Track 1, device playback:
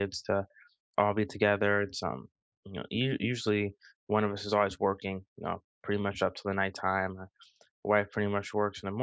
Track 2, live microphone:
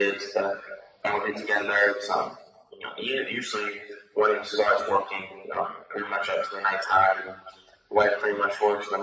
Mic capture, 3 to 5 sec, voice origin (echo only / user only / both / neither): echo only